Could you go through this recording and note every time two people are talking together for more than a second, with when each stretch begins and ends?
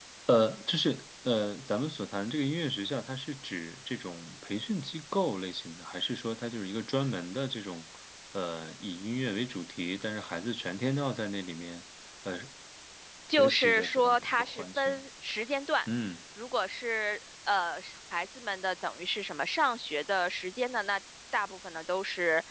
13.4-15.0

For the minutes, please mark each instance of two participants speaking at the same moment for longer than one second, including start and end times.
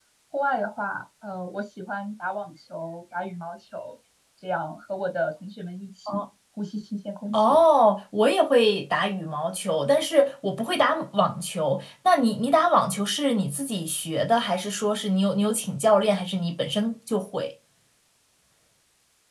none

